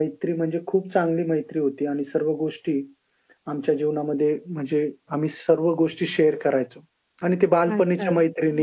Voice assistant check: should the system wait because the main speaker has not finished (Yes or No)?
No